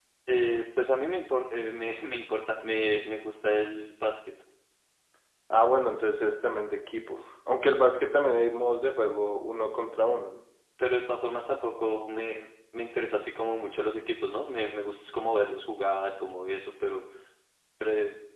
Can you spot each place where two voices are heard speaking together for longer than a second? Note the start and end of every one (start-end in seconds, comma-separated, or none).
none